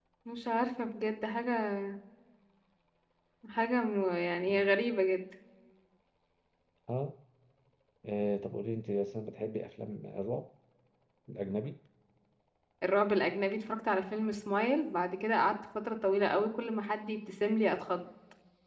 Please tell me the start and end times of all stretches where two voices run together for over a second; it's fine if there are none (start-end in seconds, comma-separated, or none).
none